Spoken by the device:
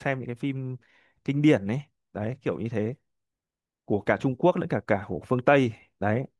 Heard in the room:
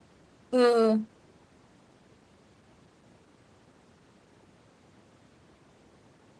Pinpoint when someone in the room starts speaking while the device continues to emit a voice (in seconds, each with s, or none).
0.5 s